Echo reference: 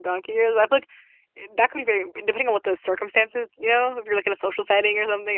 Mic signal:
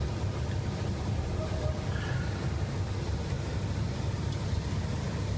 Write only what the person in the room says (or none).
none